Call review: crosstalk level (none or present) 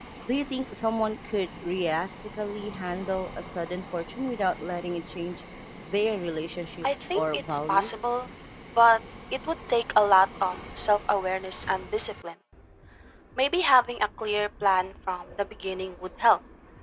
present